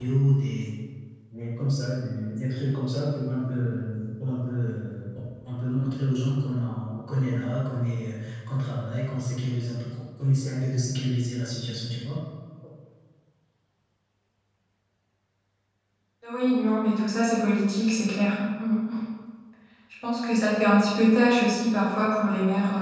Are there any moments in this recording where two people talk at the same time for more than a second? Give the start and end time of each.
none

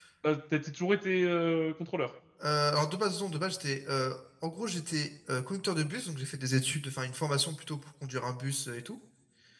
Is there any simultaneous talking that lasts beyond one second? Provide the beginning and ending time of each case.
none

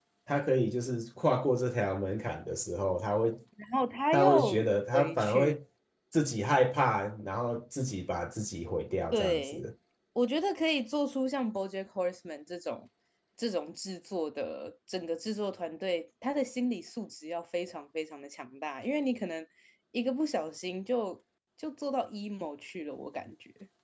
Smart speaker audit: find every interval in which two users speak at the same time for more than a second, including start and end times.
4.1-5.6

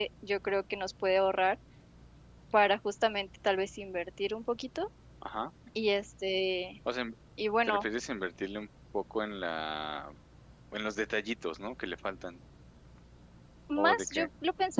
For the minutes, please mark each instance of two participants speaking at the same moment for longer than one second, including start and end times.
none

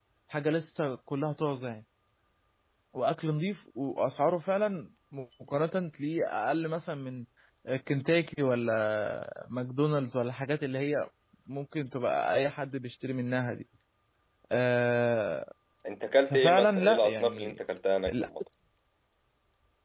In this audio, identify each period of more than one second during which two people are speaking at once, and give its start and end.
16.3-17.6

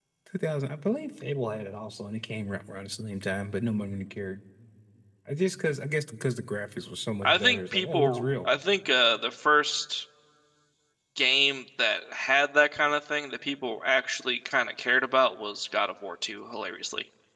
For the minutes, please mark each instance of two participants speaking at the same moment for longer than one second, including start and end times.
7.2-8.5

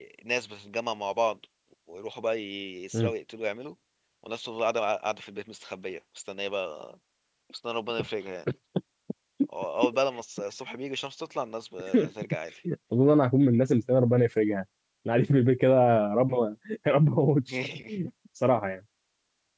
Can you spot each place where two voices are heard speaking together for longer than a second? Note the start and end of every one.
none

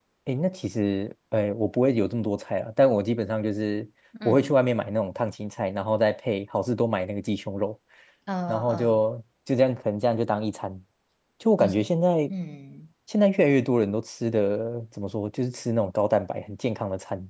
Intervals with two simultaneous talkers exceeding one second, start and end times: none

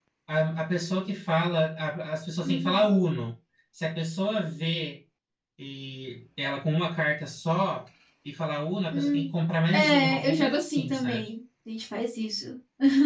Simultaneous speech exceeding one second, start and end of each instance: 9.7-11.3

